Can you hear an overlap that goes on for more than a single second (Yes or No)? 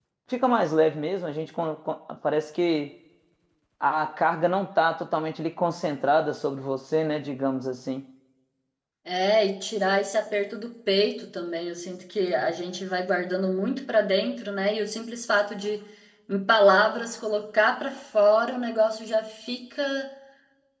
No